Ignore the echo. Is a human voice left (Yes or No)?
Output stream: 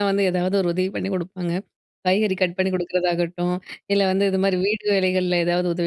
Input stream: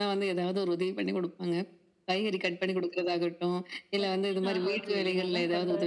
Yes